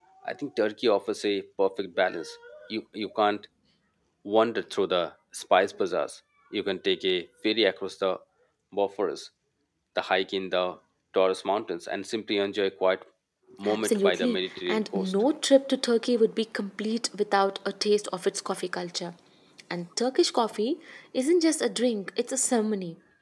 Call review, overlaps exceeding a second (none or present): present